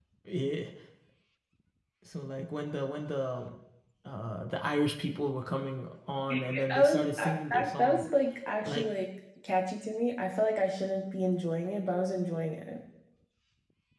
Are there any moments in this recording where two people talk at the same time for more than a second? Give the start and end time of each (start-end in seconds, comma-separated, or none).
6.5-8.1